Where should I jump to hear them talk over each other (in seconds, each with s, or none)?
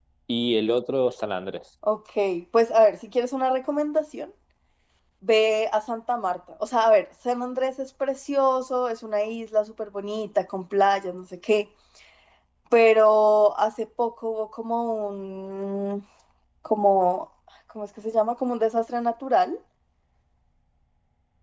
none